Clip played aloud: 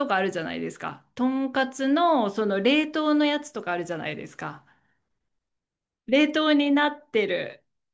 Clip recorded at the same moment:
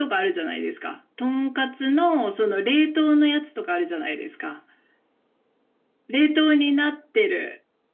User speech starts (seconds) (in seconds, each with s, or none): none